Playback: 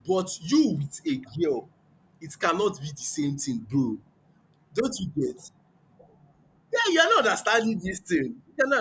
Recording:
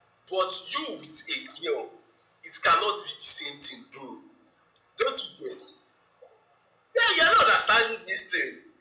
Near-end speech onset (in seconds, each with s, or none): none